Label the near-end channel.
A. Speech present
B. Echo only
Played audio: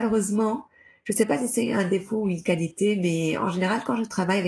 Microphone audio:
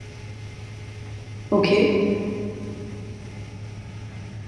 A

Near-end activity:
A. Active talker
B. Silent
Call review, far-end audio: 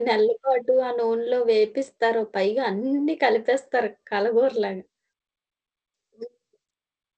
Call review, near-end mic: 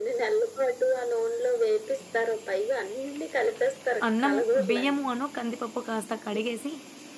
A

